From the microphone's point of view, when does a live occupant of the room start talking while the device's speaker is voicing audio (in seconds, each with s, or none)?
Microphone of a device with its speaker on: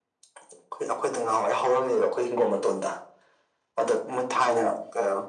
none